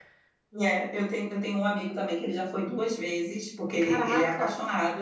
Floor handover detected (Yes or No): No